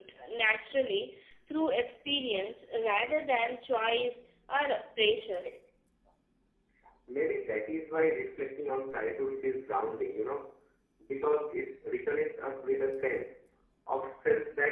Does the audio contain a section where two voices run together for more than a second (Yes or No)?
No